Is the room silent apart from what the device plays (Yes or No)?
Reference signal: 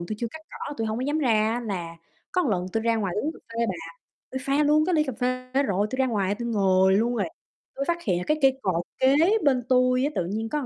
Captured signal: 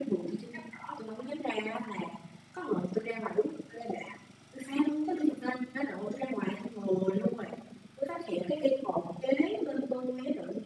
Yes